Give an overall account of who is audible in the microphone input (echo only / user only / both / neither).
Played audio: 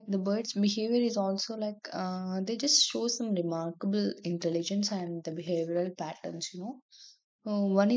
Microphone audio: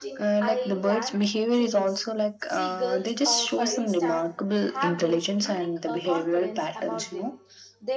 both